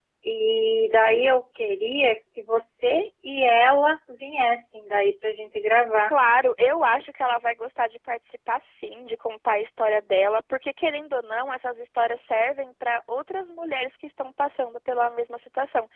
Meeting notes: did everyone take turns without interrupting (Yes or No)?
Yes